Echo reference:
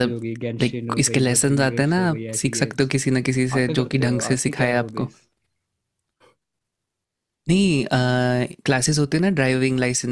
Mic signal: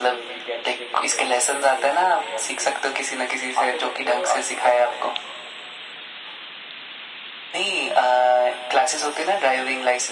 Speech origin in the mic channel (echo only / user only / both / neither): echo only